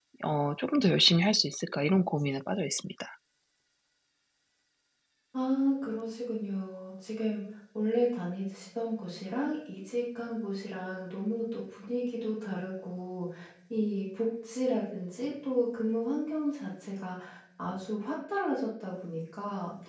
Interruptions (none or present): none